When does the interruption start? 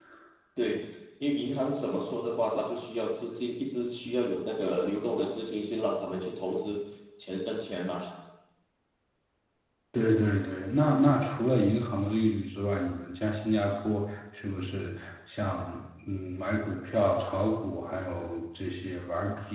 none

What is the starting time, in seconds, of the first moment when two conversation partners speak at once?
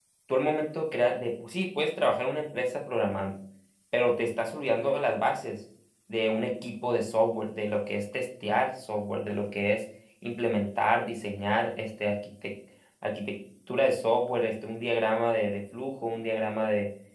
none

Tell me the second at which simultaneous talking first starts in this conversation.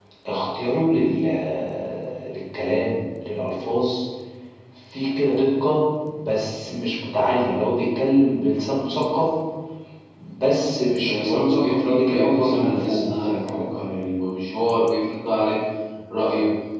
11.0 s

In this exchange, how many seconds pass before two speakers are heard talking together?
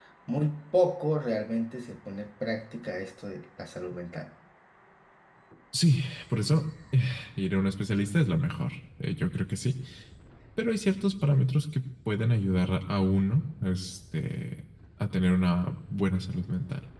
none

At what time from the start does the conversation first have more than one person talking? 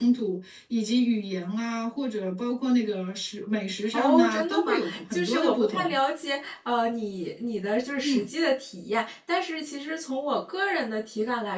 3.9 s

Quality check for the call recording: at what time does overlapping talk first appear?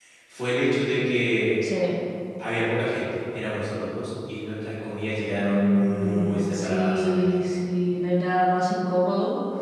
5.4 s

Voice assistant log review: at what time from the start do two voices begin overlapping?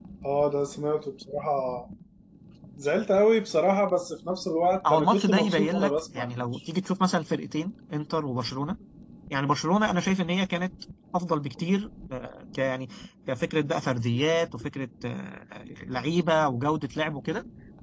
4.8 s

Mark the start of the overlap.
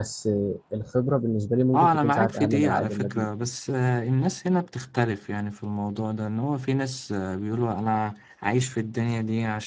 1.7 s

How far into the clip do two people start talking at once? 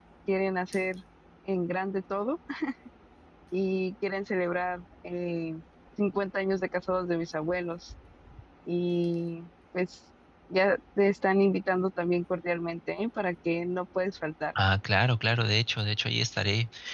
none

